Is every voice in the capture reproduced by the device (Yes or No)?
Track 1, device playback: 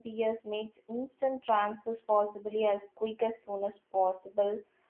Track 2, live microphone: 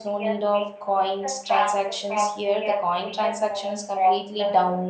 No